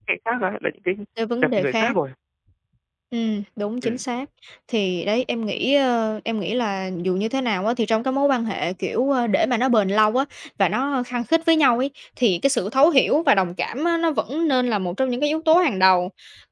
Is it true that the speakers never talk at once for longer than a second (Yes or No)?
Yes